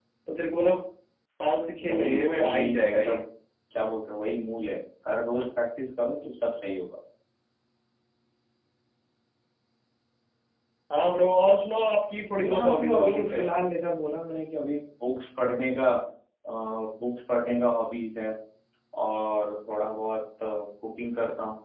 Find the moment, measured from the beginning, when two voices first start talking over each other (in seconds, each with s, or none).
1.8 s